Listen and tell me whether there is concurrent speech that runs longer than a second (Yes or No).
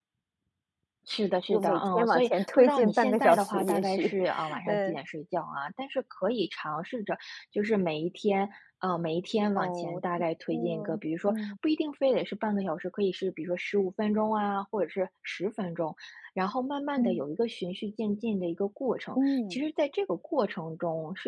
Yes